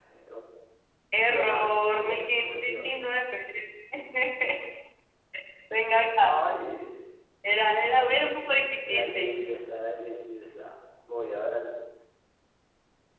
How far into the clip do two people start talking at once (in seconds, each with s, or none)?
1.2 s